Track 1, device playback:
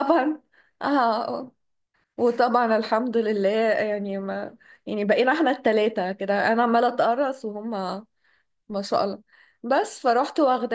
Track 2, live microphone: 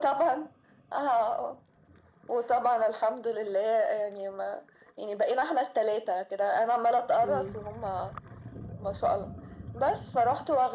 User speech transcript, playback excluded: مم.

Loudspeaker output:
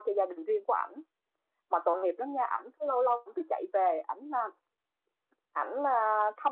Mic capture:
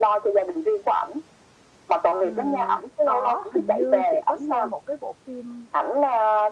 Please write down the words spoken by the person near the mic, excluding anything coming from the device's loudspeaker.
Ừm, có, hình như chị có xem một cái bộ phim

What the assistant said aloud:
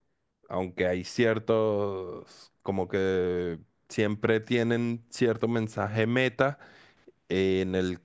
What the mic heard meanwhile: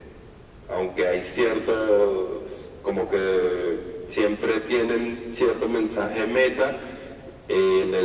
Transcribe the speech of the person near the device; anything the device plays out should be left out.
none

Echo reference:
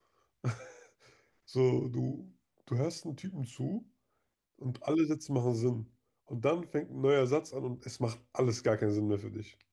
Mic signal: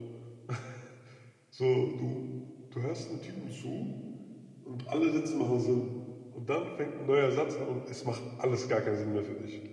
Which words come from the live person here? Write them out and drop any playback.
none

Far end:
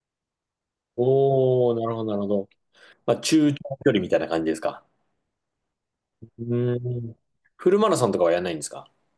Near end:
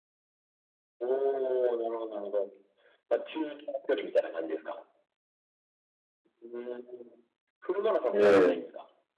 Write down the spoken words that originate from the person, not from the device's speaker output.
うん、うん。

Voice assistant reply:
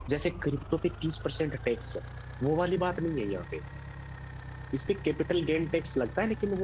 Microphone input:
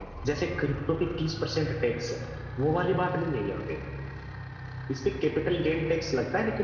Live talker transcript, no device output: none

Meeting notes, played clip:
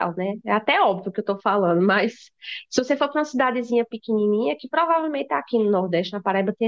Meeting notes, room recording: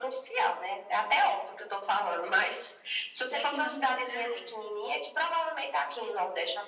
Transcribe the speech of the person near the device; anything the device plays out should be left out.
Já que não praia.

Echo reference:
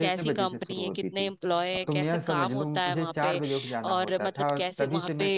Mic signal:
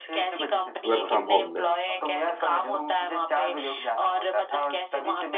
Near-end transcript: वर्क फ्रॉम होम में

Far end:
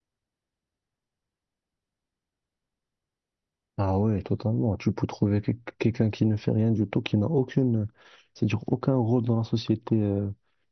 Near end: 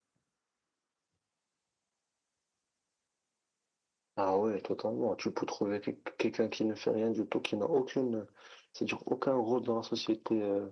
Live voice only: none

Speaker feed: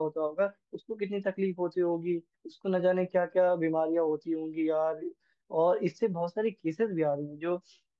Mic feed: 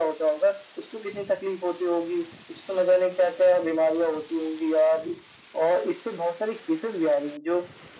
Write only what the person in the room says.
none

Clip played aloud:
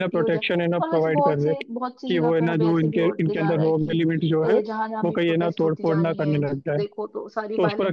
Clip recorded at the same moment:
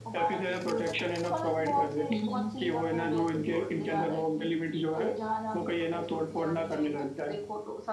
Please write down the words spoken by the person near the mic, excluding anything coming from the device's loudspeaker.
हम्म

